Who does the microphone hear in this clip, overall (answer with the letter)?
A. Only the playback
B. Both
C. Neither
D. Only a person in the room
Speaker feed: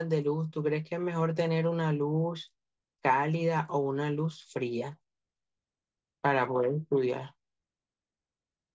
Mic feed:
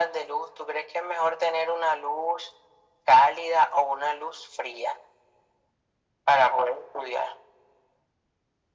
A